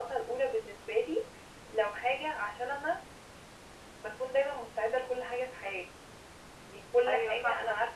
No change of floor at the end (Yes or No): Yes